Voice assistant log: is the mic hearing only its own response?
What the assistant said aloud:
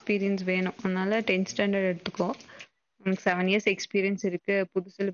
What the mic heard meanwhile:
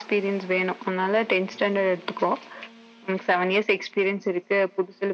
Yes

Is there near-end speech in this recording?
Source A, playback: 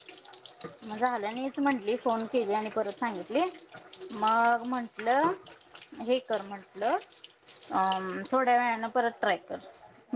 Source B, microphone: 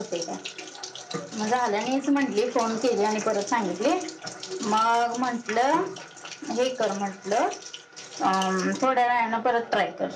No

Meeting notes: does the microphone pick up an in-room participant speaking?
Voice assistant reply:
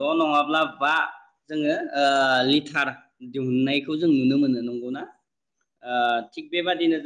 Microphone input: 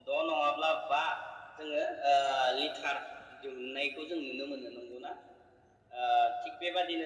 No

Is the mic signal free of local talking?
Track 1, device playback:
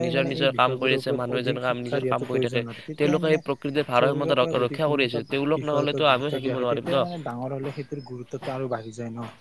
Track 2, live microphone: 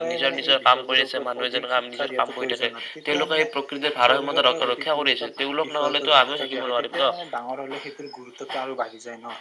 Yes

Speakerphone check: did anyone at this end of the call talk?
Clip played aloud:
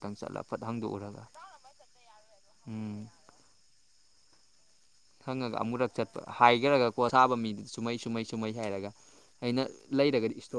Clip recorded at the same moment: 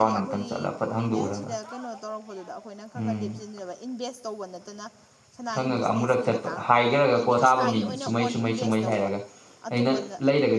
Yes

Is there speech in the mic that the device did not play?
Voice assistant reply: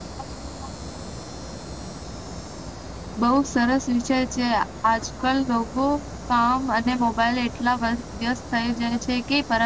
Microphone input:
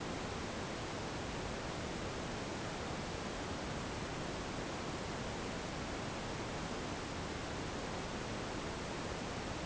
No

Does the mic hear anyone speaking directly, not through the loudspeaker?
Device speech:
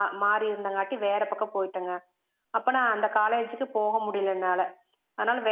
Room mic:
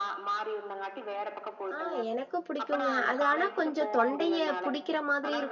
Yes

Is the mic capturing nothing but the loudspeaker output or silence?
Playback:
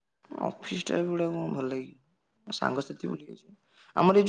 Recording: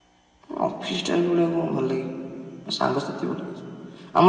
Yes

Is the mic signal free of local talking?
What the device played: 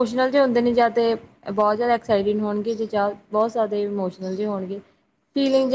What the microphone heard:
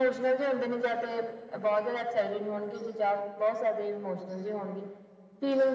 Yes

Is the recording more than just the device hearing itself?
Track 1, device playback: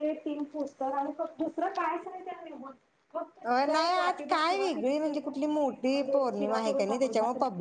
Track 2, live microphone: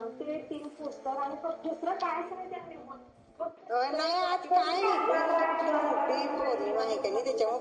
Yes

